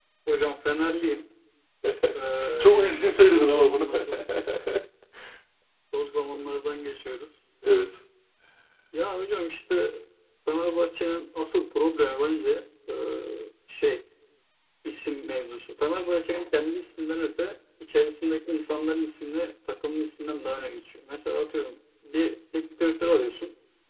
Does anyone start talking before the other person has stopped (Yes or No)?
Yes